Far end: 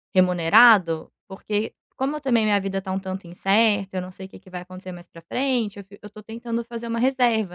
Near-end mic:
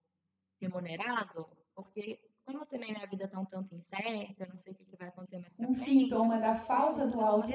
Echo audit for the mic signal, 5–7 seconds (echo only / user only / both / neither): both